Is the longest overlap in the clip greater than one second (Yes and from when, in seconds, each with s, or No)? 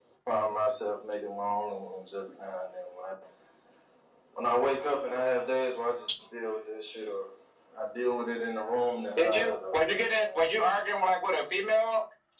Yes, from 9.2 s